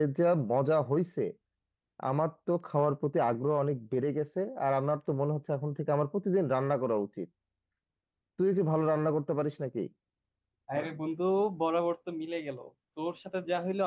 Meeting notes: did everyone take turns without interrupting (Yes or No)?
Yes